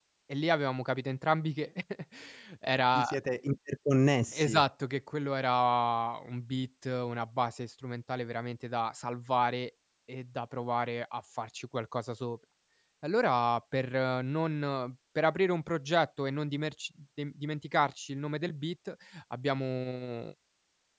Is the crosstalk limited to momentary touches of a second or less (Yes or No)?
Yes